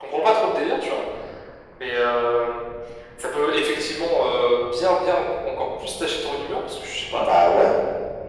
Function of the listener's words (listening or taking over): listening